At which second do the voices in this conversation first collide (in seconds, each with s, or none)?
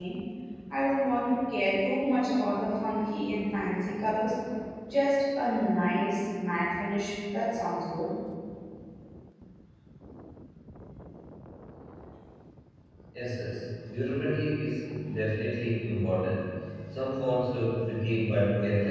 none